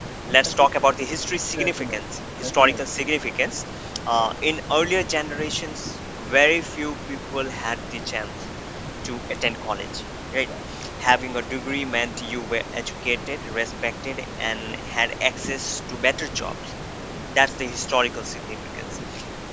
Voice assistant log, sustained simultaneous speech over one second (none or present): present